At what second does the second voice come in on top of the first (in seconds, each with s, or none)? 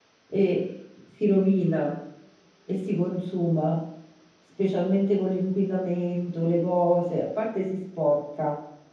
none